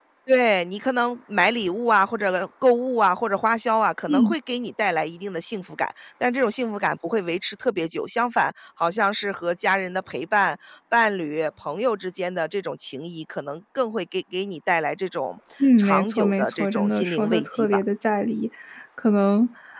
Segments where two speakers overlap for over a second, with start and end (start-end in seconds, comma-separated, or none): 15.8-17.8